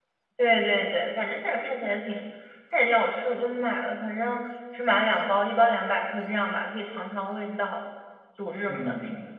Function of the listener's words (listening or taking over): taking over